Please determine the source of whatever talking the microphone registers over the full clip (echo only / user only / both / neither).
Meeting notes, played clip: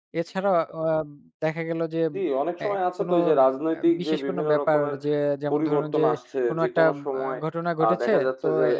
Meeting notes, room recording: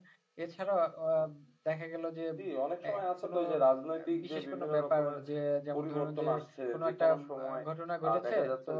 echo only